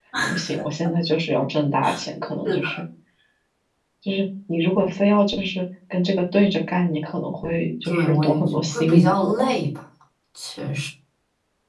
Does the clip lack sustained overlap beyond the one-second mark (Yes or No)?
No